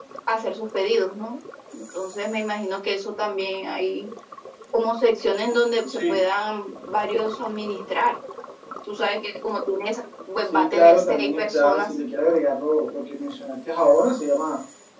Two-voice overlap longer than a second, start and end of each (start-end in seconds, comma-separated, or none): 10.5-11.9